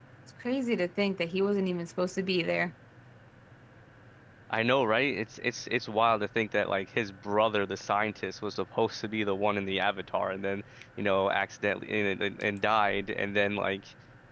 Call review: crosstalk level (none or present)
none